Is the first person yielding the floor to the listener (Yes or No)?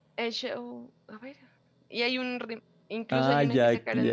Yes